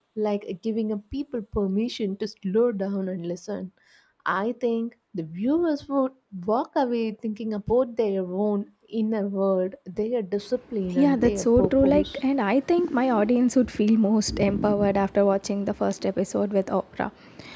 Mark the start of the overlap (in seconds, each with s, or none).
10.9 s